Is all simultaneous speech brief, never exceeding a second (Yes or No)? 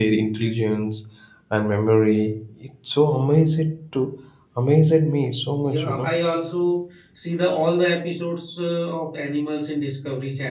Yes